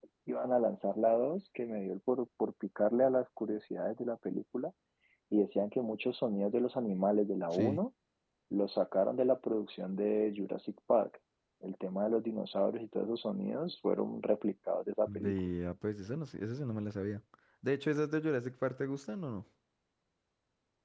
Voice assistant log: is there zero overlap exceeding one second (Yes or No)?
Yes